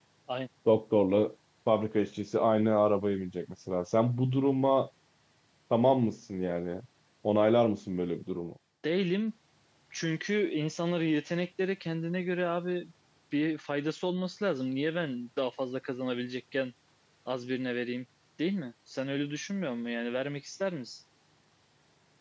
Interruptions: none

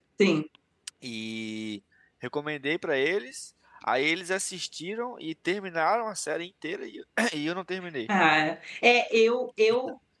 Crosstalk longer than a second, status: none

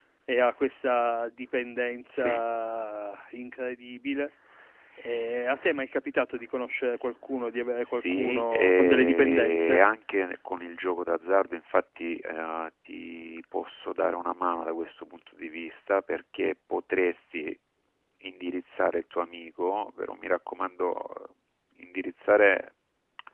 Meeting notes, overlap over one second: present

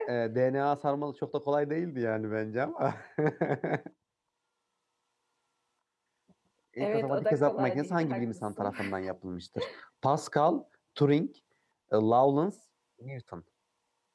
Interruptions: present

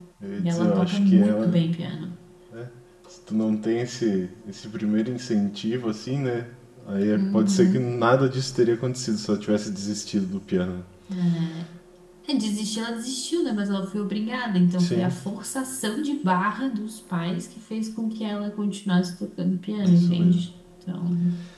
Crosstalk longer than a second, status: present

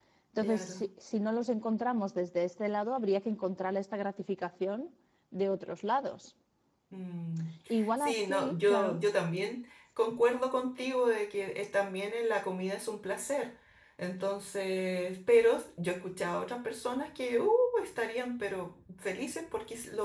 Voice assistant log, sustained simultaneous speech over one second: present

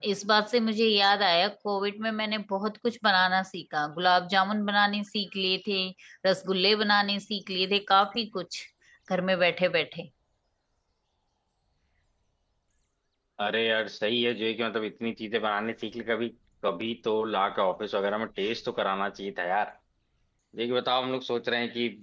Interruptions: none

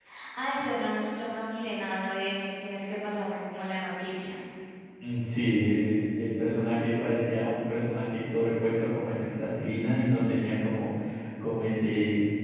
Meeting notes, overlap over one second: none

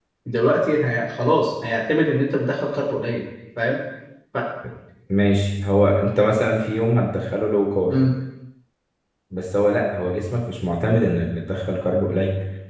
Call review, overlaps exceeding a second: none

